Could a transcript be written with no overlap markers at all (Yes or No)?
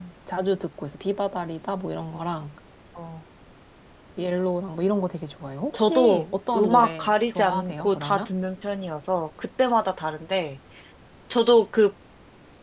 No